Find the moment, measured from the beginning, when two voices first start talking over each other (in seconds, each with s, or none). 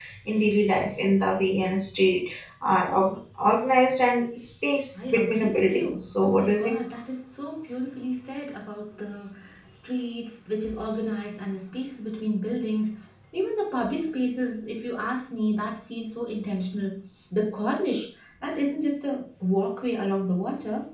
5.0 s